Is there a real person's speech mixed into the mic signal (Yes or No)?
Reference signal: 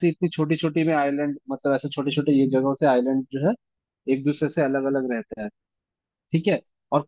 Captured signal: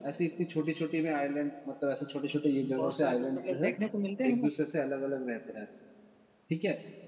Yes